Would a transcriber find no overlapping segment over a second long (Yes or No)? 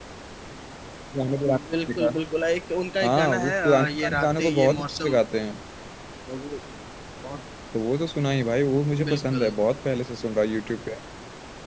No